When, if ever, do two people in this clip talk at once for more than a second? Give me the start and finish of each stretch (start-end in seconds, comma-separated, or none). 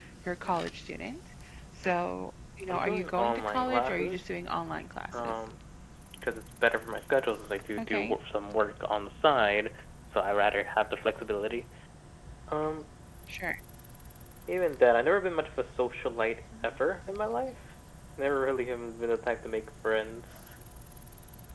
2.7-4.3